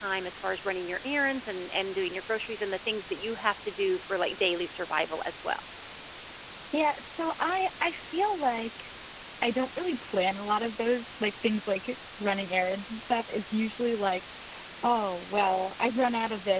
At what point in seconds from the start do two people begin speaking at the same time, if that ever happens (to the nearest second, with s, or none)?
none